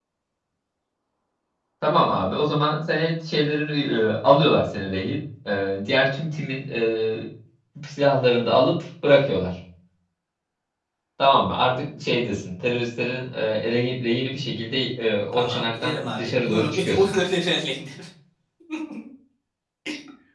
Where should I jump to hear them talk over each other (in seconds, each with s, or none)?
15.3 s